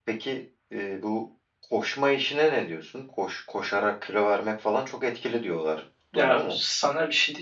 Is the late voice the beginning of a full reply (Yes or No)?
Yes